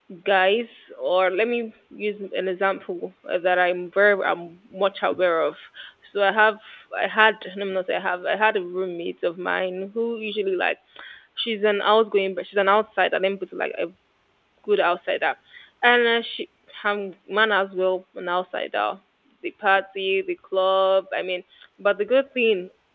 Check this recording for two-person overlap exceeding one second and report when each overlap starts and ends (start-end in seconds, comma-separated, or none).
none